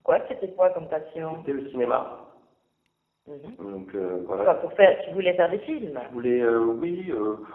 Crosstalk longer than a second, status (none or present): none